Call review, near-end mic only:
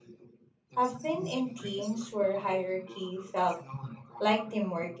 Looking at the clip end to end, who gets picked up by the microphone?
both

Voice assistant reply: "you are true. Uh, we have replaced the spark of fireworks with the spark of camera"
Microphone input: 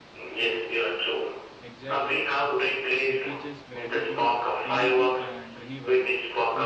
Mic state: both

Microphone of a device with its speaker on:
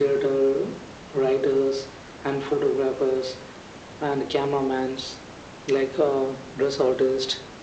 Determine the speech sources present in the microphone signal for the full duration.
echo only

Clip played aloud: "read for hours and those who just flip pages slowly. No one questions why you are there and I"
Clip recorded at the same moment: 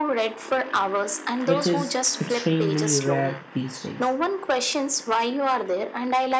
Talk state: both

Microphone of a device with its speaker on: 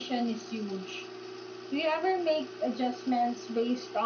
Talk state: echo only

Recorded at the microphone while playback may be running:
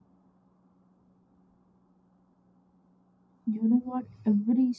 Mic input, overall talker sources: user only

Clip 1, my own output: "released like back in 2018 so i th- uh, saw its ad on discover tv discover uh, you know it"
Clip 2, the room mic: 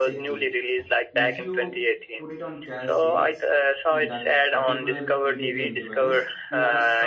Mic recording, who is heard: both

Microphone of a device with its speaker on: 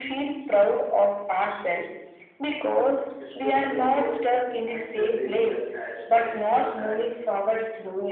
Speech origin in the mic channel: both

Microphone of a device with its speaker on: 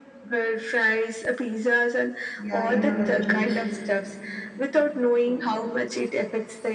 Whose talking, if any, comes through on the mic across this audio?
both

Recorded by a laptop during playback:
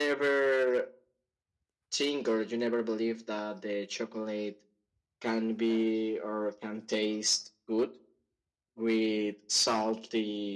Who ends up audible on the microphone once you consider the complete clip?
echo only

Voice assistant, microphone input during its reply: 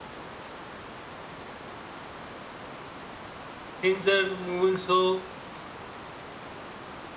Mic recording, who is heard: user only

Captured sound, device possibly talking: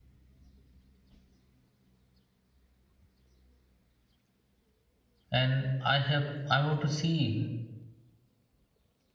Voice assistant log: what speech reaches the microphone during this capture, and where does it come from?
user only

